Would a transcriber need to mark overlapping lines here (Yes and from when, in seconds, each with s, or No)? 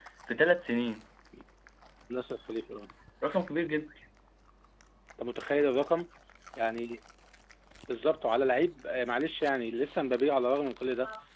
No